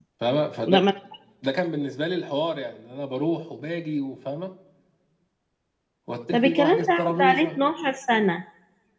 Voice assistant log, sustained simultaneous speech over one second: present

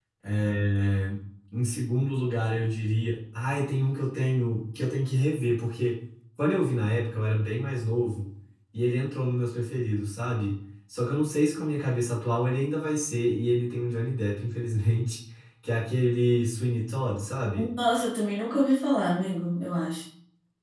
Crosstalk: none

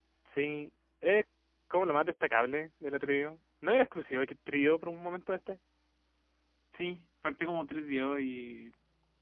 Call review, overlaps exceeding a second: none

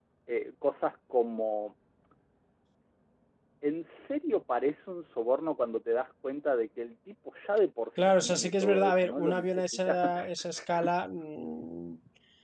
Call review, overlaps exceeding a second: present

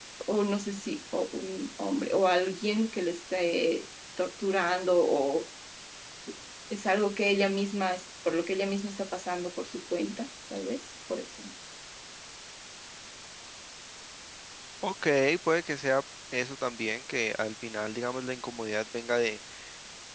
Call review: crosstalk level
none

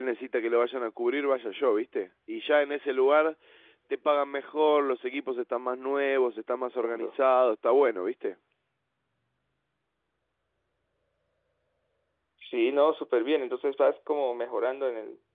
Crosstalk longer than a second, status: none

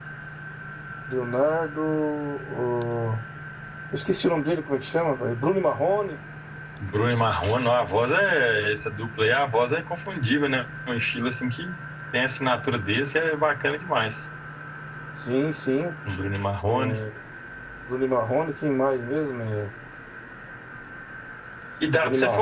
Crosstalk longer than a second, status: none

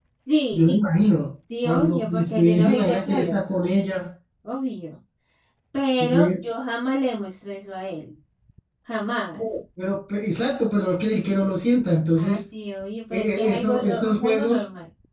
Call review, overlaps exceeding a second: present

